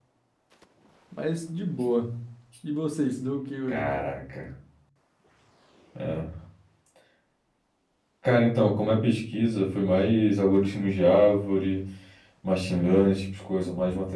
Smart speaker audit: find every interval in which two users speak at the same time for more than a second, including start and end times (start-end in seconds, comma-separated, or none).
none